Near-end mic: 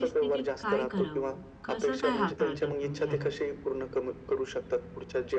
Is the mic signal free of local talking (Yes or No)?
No